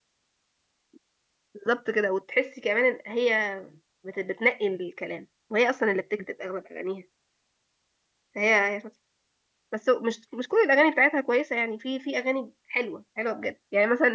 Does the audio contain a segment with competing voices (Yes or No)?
No